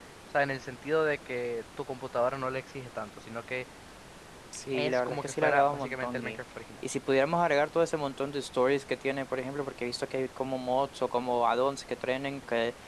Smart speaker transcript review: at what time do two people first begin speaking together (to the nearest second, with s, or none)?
5 s